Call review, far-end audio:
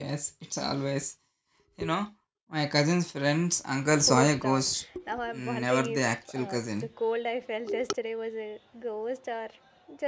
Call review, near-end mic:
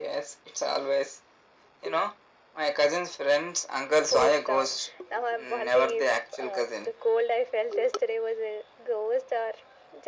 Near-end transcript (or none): none